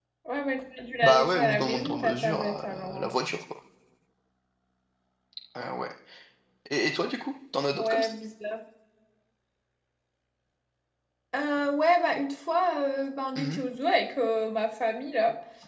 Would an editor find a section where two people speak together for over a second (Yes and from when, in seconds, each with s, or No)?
Yes, from 1.0 s